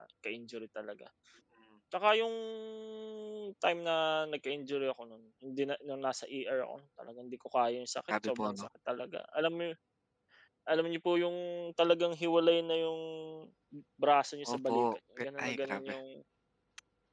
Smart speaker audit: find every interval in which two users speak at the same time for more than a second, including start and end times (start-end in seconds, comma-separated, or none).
14.5-16.0